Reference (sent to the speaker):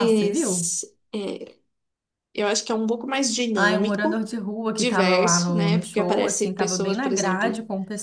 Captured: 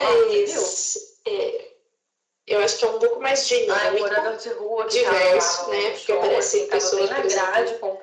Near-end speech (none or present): none